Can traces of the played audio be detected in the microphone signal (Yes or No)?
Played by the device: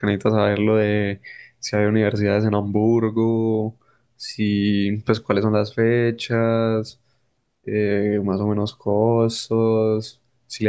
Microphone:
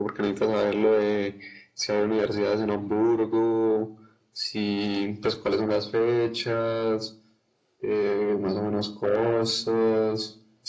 Yes